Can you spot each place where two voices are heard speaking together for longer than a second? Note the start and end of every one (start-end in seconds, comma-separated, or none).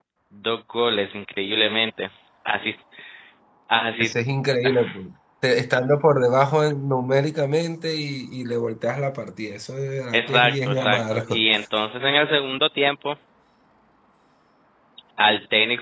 10.1-11.4